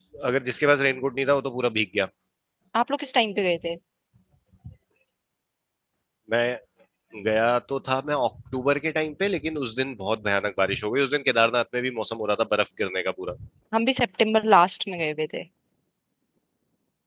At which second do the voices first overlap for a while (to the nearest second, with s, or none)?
none